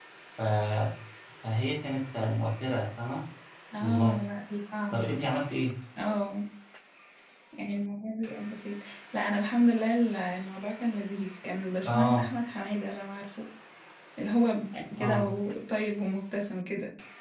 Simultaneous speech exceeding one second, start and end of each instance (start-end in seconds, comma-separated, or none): none